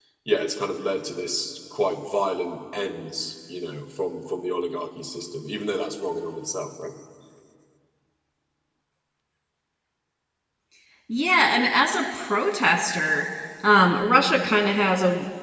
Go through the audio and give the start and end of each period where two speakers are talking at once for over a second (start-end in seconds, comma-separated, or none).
none